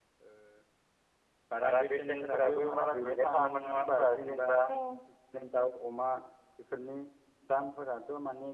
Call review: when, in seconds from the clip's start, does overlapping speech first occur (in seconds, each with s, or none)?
1.6 s